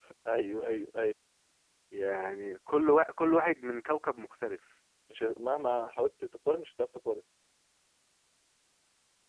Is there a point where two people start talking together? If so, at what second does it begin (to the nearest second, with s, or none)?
none